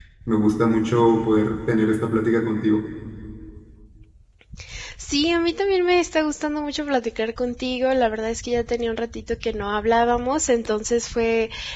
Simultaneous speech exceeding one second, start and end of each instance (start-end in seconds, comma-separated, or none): none